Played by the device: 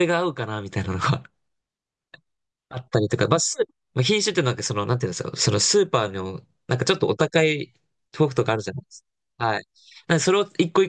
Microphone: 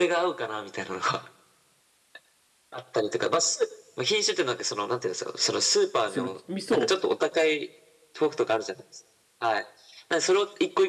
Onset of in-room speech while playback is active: 6.1 s

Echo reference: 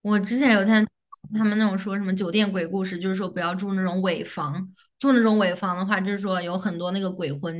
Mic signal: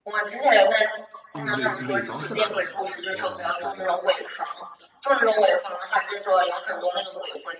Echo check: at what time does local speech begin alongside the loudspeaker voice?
1.3 s

